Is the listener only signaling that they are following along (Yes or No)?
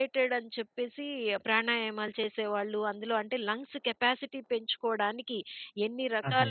Yes